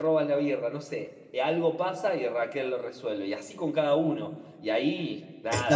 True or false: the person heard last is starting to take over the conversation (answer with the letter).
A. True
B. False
A